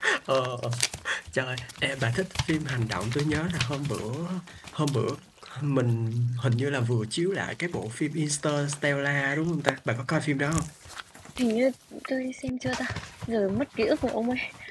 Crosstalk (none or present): none